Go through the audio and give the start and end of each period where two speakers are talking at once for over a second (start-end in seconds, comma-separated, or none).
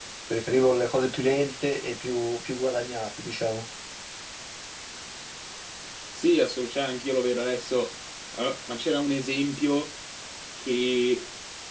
none